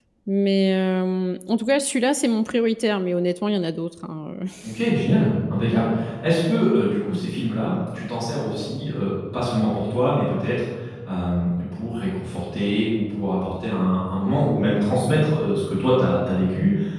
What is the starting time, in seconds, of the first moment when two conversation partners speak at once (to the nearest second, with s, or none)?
none